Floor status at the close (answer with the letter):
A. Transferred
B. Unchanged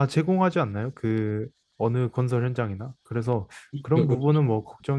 B